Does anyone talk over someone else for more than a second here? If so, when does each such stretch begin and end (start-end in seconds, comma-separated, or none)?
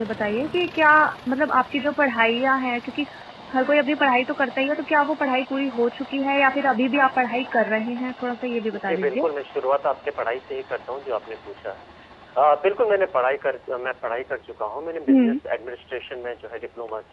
none